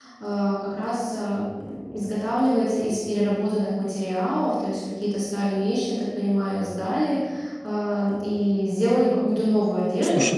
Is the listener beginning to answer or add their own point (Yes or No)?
No